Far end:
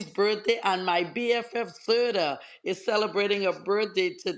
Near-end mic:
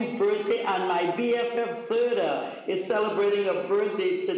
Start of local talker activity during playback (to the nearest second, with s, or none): none